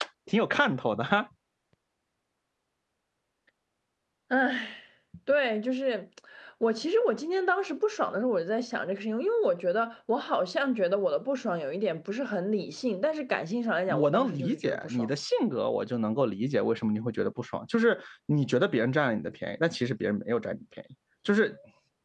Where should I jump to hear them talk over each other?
13.9 s

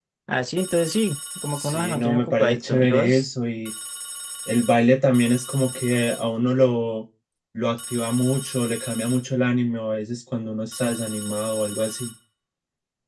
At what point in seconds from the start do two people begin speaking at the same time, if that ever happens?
1.6 s

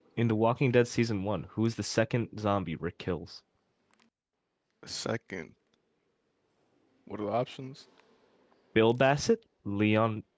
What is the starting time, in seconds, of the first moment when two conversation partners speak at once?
none

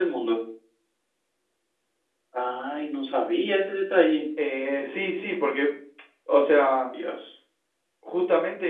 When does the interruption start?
none

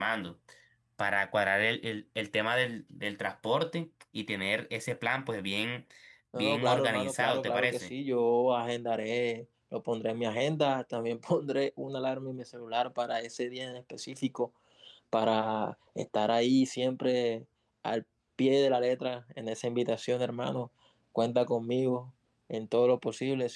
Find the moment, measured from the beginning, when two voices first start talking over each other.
6.3 s

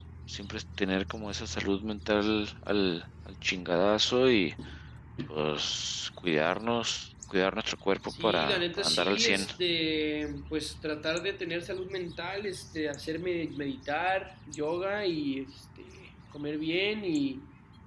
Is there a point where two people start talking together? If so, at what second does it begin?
8.1 s

